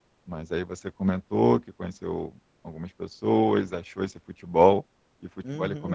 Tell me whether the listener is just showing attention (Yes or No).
No